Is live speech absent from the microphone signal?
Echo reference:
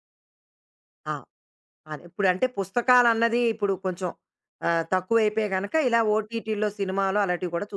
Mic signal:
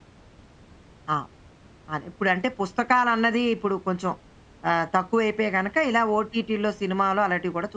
Yes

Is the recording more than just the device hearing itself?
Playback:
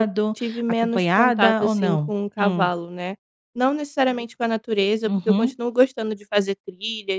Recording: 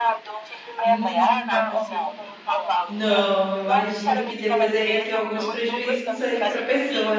Yes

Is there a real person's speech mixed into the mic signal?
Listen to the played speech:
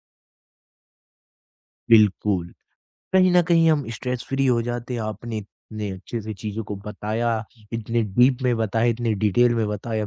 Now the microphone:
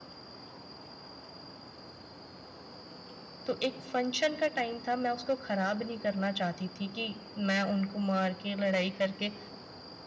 Yes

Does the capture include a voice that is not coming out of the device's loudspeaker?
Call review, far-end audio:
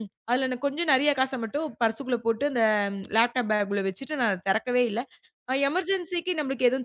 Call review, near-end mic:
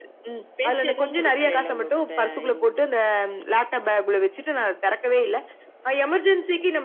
Yes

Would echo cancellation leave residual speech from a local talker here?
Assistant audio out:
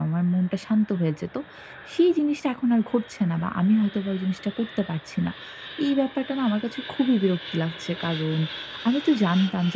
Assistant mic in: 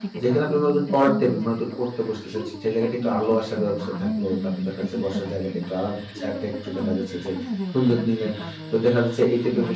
Yes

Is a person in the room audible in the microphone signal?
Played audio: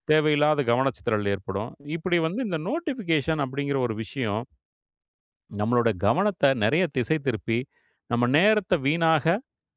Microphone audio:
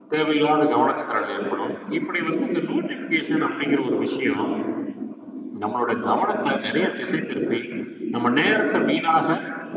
No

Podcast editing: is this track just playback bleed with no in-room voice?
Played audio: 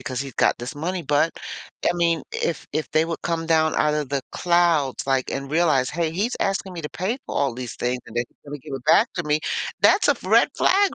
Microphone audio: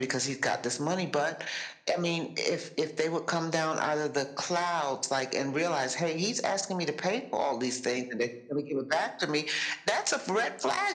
Yes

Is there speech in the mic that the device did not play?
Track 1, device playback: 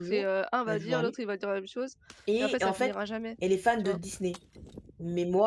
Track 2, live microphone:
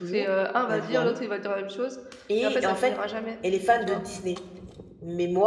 No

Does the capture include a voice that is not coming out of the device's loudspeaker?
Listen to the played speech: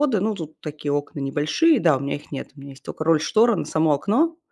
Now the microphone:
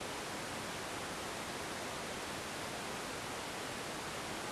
No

